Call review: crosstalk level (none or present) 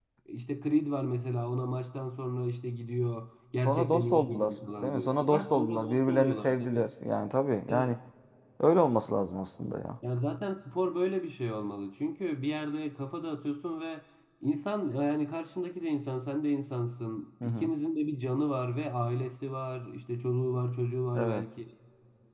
present